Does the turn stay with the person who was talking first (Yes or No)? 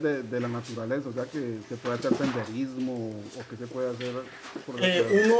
No